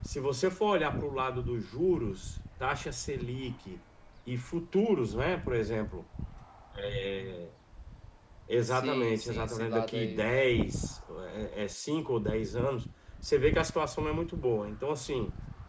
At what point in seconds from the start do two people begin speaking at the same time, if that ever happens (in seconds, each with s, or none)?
8.7 s